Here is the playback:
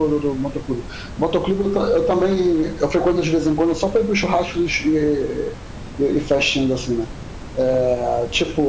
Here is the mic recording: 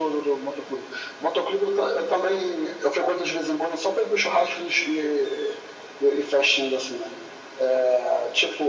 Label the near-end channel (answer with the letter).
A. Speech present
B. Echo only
B